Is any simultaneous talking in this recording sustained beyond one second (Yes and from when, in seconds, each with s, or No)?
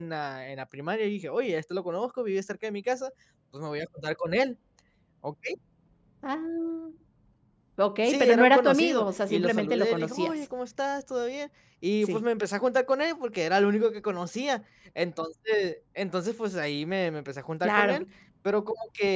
Yes, from 8.1 s